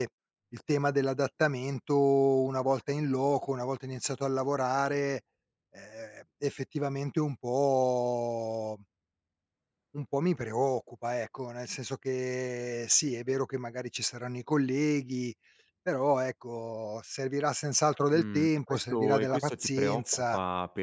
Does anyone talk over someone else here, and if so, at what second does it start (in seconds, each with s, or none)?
18.1 s